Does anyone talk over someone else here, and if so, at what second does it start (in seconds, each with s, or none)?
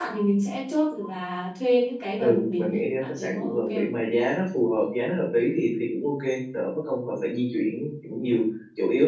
2.2 s